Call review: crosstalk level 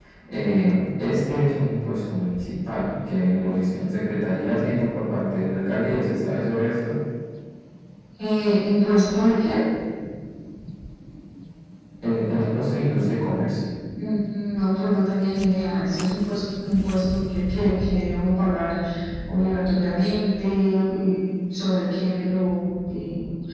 none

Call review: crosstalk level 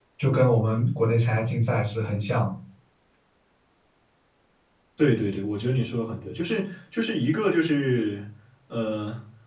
none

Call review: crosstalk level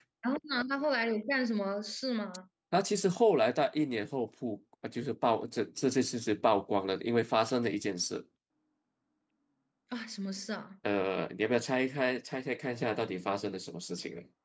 none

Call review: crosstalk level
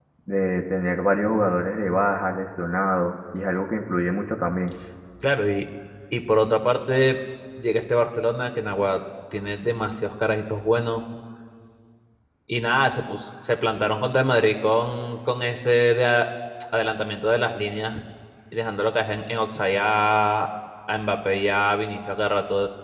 none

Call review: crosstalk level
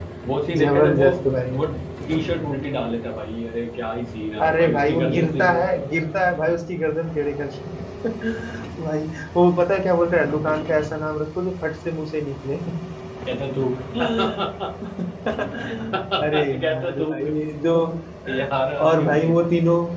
present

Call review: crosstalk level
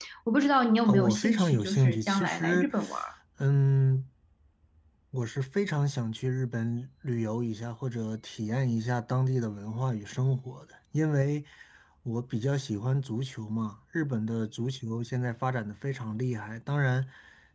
present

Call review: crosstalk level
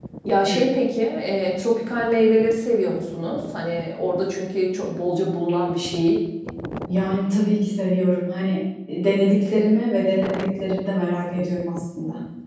none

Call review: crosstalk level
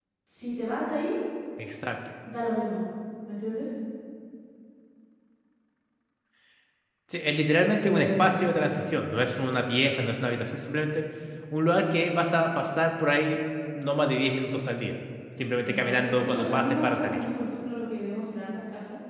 present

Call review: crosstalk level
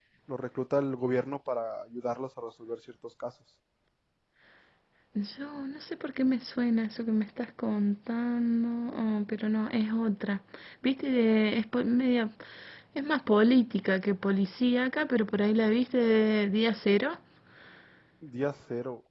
none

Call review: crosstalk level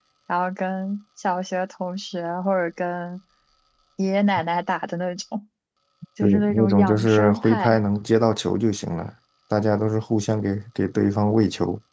present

